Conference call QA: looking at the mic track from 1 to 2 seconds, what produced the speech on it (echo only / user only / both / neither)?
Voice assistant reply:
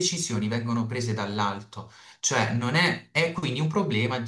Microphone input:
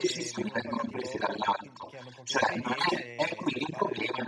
both